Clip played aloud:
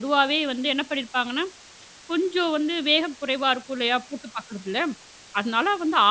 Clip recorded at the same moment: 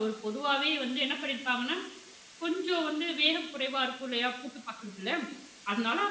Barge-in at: none

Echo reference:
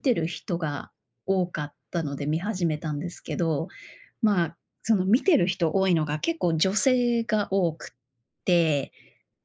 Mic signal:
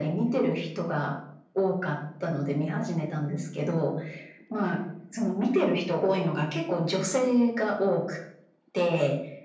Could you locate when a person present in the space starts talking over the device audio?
none

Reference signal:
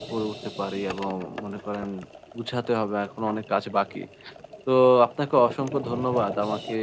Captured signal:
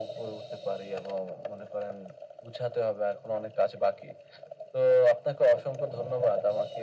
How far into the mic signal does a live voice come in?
none

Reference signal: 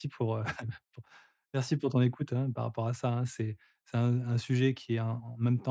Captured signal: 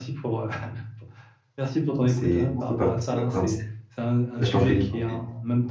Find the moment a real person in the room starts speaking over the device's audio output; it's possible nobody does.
2.0 s

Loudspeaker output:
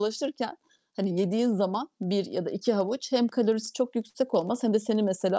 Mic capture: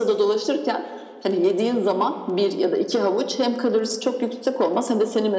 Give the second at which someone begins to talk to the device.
none

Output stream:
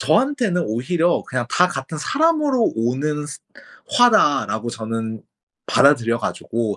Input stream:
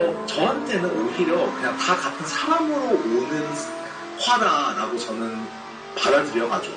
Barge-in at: none

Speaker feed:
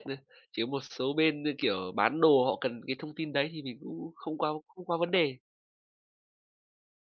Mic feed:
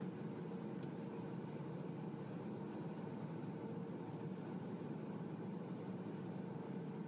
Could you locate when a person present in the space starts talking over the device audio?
none

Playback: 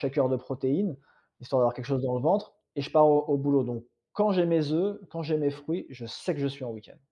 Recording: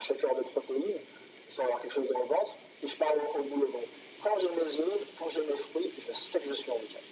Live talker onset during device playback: none

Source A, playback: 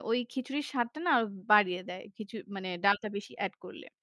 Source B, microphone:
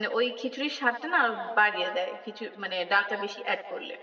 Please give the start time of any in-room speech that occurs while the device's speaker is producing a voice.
none

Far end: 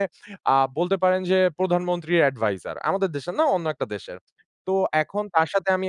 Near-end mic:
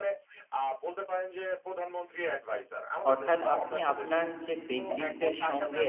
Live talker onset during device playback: 3.1 s

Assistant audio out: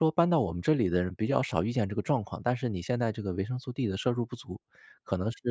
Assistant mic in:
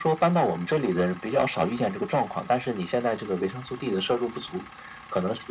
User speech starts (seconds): none

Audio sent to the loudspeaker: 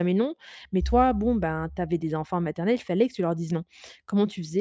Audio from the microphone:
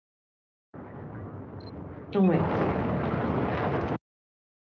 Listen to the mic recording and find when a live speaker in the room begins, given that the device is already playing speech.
2.1 s

